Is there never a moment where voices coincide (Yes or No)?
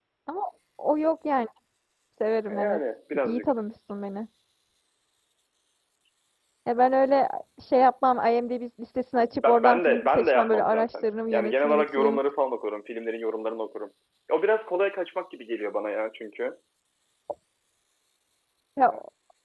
No